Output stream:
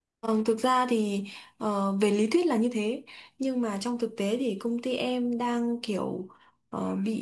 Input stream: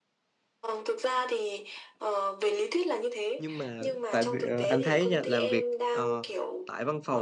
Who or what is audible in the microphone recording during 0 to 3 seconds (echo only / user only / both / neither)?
echo only